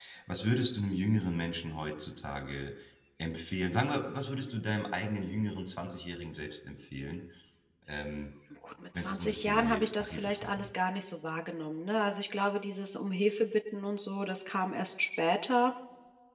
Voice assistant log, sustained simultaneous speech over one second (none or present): present